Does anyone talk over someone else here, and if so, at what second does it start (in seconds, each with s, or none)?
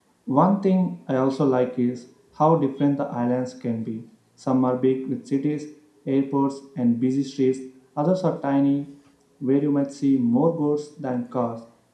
none